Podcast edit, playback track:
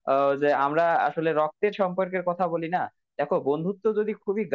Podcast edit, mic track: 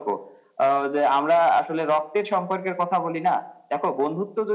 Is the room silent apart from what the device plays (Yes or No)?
Yes